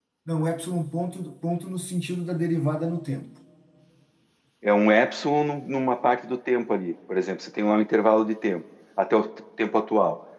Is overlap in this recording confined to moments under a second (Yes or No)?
Yes